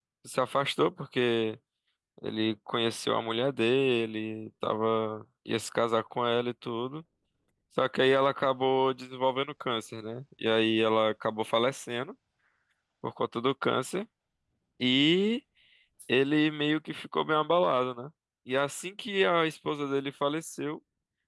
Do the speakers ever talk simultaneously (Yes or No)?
No